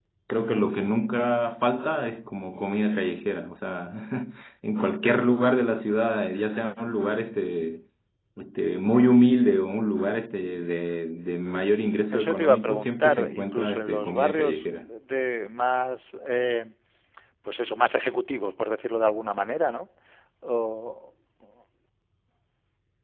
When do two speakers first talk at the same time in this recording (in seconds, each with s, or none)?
12.1 s